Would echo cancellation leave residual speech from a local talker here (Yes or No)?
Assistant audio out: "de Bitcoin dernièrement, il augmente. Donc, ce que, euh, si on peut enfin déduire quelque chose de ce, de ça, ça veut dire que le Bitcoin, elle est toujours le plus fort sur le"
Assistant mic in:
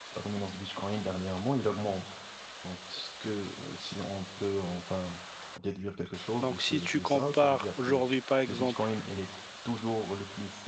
Yes